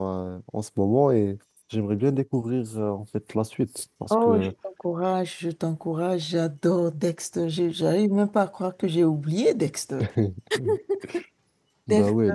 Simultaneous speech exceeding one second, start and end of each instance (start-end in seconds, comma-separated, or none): none